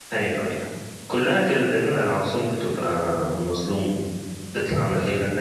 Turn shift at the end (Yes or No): No